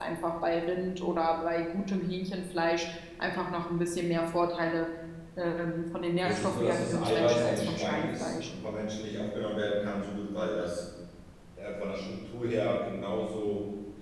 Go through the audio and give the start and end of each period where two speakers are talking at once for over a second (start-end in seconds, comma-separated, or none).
6.2-8.5